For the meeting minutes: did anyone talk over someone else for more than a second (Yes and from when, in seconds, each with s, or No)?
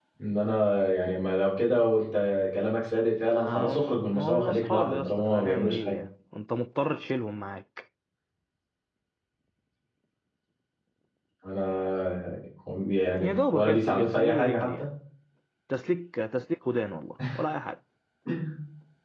Yes, from 3.3 s